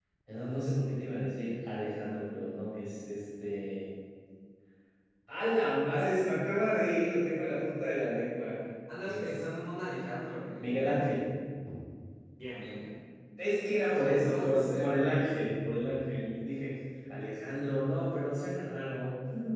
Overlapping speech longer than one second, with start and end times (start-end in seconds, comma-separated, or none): 13.8-15.1